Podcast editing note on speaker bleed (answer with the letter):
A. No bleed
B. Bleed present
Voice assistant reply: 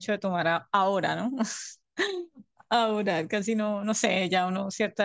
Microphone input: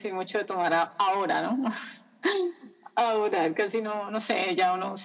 B